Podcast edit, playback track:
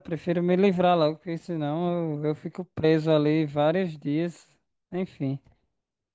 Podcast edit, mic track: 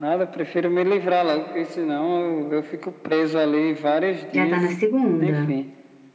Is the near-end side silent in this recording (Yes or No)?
No